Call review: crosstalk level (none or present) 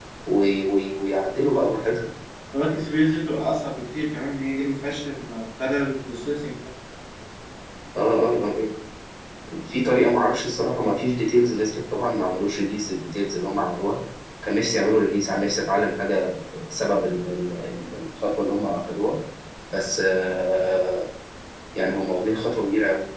none